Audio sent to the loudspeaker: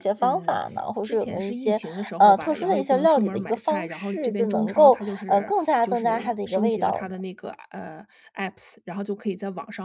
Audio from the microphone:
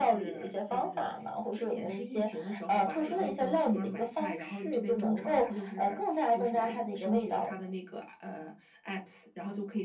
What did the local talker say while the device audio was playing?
none

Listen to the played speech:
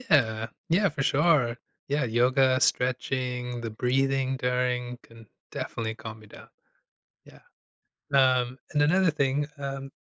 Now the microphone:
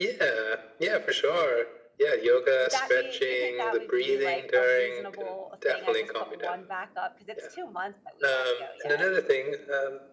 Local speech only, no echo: would that be you think that would be, like, a reasonable thing? I just put 1 back up because it's 2 months that we gotta go yet.

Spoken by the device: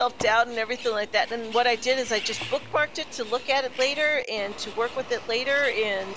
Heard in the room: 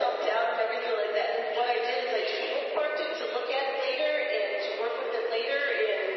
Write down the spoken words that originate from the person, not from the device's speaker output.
none

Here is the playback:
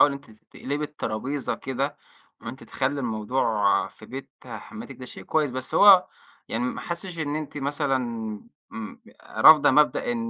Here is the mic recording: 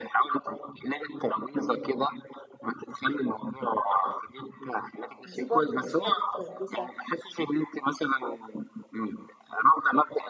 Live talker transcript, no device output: دي برضه مش حاجة كويسة،

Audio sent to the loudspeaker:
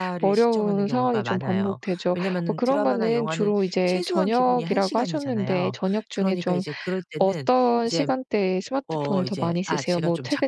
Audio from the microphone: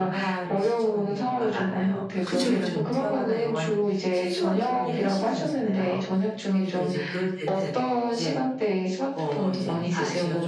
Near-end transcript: 그쵸, 그쵸.

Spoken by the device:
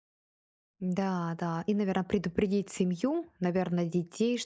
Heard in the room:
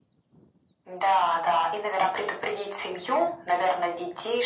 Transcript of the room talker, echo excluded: none

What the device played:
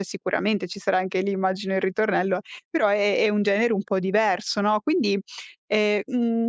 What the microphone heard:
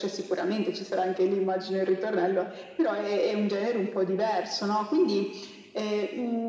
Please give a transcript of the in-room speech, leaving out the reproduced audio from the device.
none

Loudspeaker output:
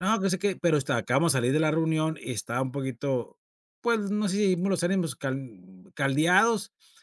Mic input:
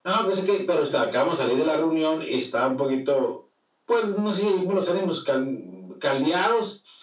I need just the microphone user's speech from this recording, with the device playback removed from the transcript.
none

